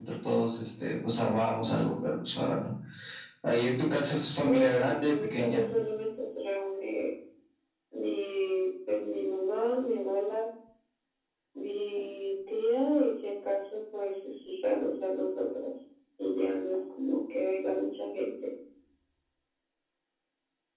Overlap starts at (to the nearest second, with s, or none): 4 s